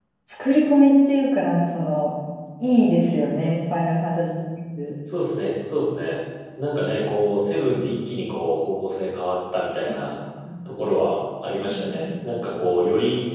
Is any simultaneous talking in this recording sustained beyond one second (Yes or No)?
No